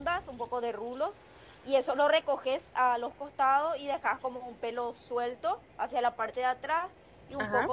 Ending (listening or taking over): listening